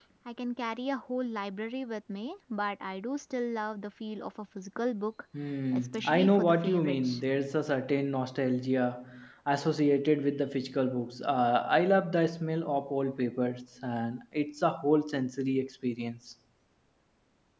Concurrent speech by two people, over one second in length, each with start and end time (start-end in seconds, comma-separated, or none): 5.7-7.2